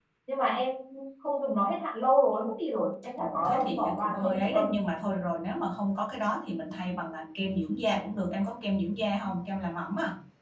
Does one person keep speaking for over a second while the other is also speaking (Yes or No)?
Yes